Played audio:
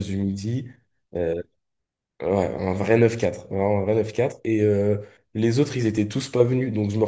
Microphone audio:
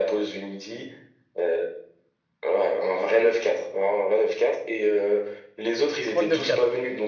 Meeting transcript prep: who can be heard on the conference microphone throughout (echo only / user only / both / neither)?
both